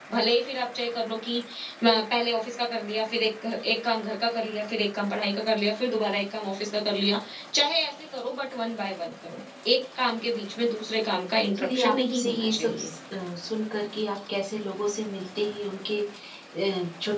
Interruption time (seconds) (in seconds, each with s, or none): 11.6 s